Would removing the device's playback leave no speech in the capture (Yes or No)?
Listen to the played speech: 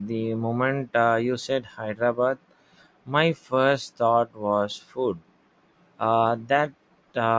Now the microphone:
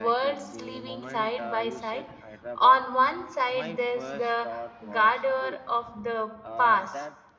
No